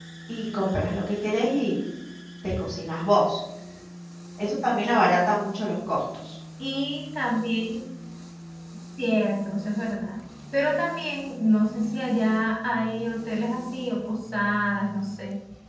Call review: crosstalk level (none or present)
none